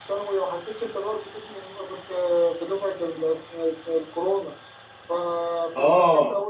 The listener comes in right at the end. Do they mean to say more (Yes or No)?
No